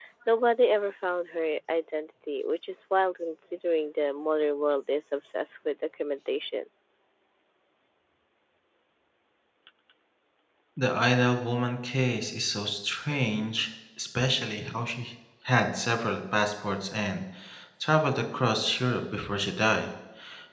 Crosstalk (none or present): none